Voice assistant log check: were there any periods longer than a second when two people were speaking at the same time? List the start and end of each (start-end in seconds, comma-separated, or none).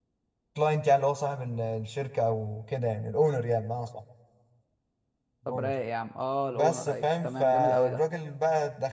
6.5-8.0